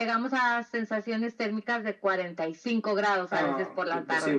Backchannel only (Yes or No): No